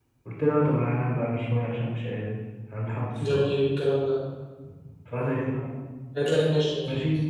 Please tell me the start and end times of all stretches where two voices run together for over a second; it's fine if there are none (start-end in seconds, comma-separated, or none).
none